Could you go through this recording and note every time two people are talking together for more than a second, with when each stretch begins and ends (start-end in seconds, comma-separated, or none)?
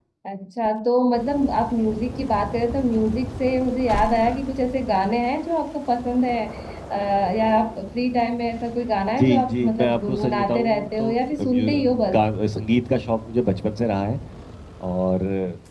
9.2-12.2